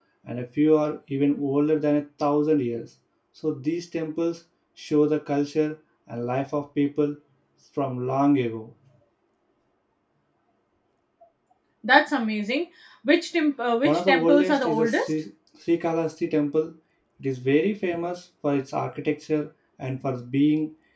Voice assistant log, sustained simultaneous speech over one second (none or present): present